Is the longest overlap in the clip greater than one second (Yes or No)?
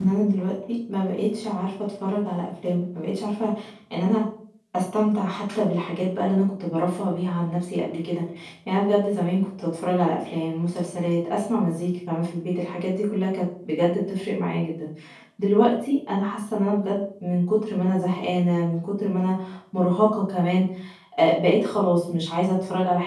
No